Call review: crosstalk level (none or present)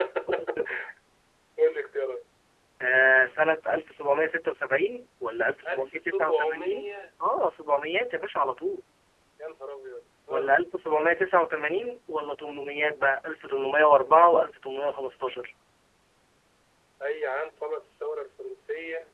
present